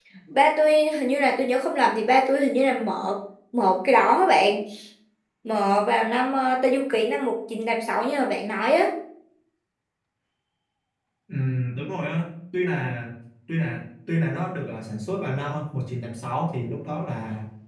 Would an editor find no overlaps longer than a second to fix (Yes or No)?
Yes